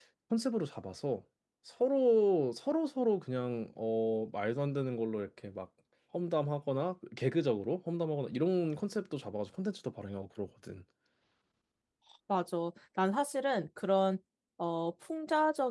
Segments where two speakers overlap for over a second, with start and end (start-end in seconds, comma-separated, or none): none